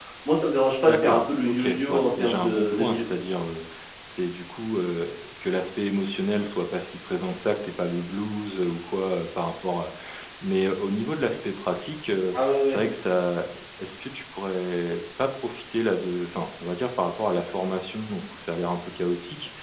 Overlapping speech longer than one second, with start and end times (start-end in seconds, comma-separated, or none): 0.8-3.2